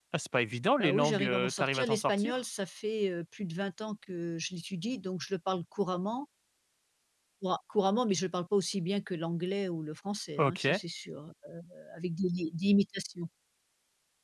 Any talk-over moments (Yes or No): Yes